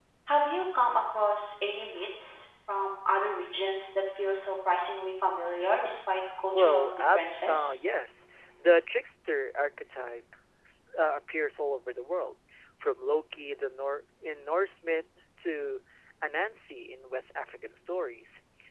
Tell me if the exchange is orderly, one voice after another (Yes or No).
No